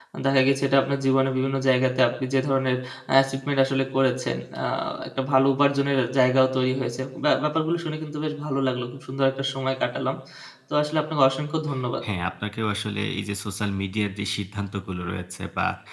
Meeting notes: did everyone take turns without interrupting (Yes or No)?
Yes